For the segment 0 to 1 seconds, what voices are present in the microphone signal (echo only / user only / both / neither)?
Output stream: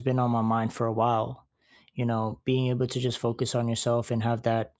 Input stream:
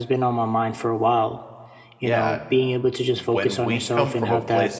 echo only